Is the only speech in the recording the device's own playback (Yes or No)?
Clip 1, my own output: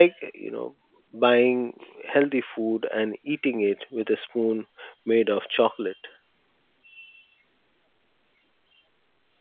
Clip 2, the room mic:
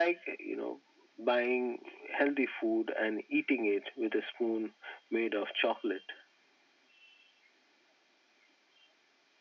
Yes